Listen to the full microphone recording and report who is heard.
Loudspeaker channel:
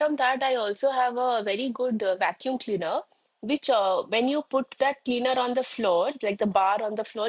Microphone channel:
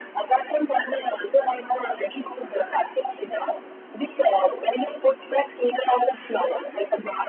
echo only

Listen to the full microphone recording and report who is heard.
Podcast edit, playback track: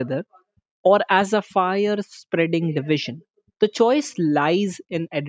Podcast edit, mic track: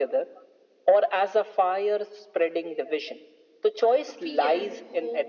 both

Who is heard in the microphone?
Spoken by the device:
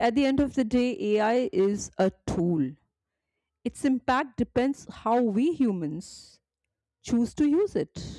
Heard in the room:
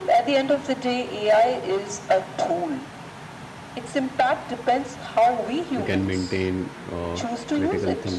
both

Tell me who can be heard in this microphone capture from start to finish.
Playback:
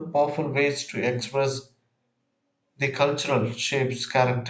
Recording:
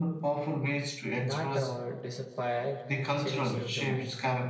both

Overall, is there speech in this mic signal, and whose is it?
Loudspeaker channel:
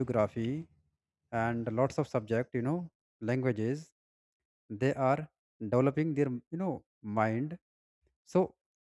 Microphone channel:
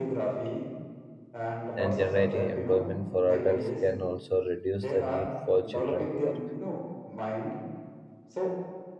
both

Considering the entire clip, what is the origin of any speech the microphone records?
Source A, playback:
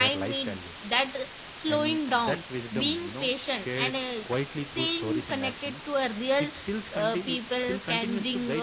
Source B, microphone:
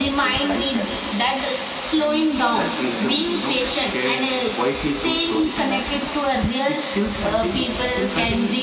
echo only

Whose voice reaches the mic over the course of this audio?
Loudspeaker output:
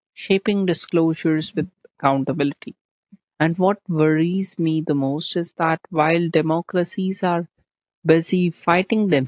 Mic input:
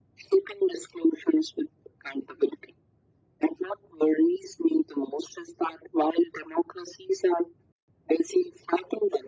echo only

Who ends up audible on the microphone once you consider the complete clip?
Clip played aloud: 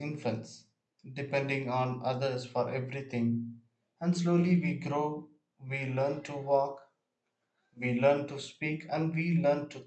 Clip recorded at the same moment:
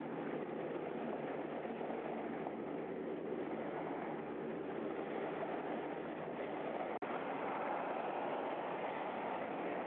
neither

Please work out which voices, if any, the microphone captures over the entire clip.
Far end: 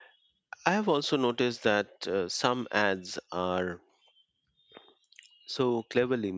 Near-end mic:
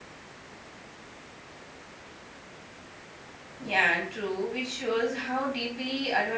user only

